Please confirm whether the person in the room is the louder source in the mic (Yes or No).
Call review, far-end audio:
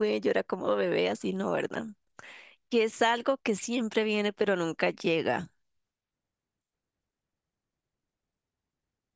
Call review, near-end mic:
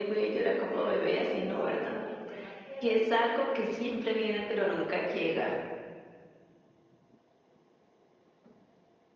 No